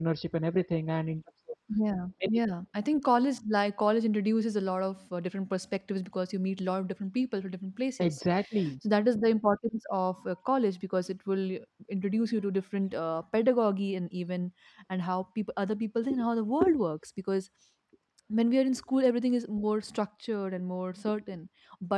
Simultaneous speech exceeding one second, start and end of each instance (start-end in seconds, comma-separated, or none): none